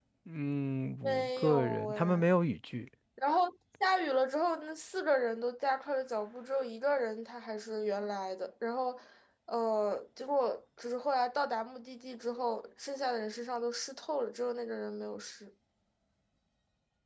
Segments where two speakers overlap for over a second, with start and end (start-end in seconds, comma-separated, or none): 1.0-2.2